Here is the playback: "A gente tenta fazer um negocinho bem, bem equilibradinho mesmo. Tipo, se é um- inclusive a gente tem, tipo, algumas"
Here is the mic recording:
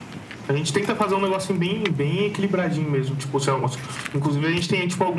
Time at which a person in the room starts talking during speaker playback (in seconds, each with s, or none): none